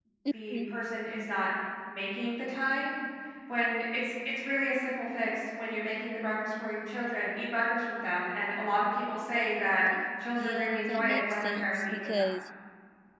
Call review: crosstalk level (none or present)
present